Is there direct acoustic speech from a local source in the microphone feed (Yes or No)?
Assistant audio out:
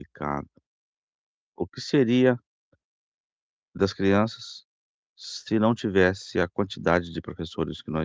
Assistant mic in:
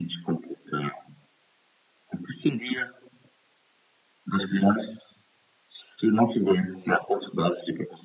No